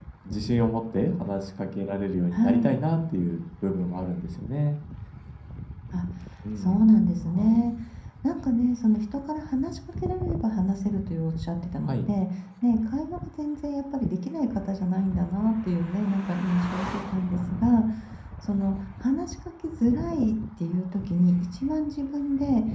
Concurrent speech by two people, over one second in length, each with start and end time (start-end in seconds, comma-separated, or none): none